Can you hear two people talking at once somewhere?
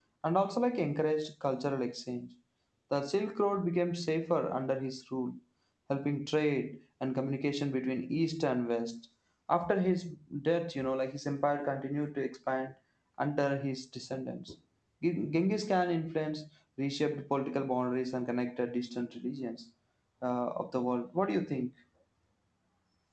No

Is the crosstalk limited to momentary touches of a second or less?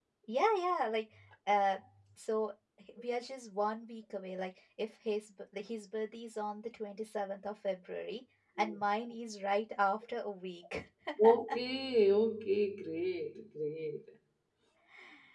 Yes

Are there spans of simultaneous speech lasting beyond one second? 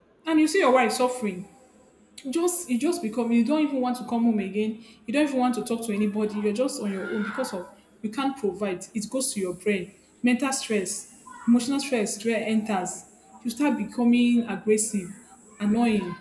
No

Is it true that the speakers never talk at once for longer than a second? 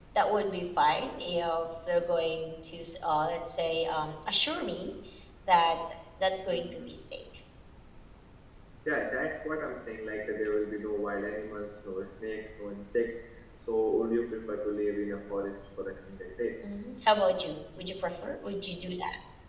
Yes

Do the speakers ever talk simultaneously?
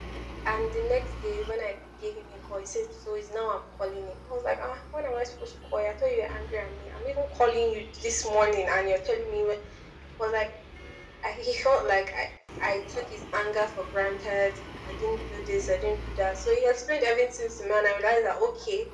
No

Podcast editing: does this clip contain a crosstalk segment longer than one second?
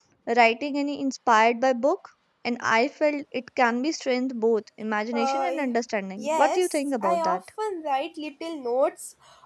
Yes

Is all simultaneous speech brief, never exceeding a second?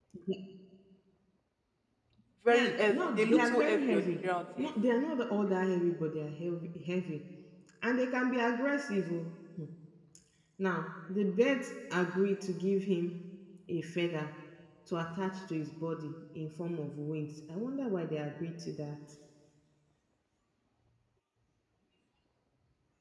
No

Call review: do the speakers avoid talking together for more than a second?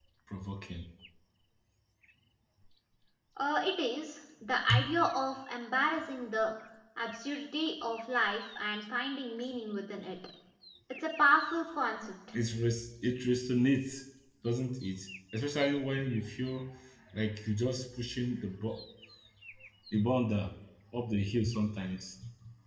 Yes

